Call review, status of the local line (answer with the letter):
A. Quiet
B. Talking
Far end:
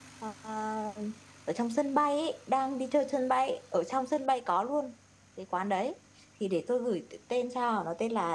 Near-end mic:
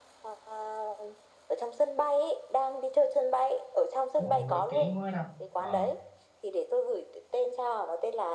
B